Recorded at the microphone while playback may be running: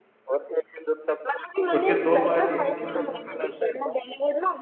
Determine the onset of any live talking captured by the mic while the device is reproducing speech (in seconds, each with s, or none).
1.8 s